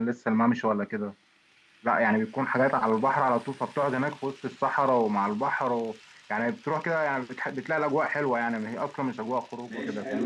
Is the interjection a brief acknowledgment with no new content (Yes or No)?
No